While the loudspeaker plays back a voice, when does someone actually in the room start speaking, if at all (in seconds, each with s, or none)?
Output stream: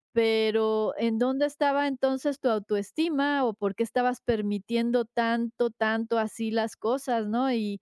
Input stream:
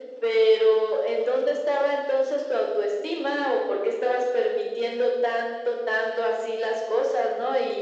none